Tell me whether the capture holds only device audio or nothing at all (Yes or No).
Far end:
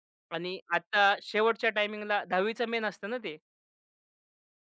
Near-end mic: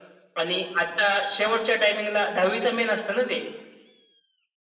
Yes